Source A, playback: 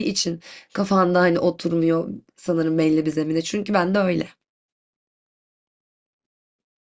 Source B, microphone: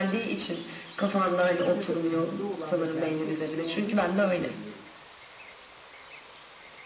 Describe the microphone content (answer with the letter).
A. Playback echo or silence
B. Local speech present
B